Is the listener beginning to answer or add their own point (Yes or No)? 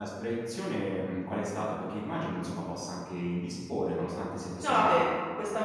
Yes